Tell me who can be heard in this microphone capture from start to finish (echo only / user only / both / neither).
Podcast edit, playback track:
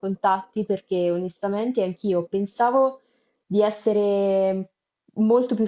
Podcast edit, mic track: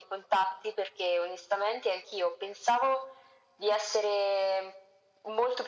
echo only